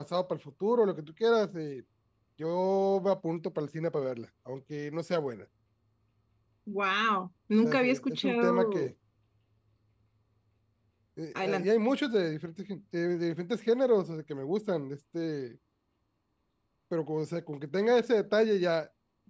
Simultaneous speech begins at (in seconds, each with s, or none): 7.6 s